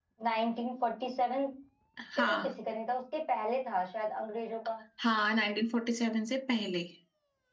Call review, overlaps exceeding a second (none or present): none